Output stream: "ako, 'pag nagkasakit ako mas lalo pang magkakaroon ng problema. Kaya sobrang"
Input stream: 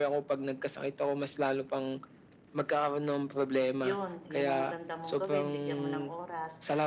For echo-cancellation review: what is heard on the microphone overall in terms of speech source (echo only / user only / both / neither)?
both